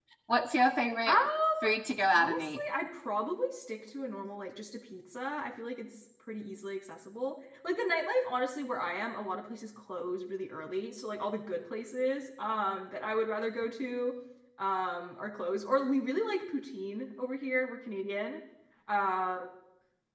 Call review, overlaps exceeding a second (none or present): none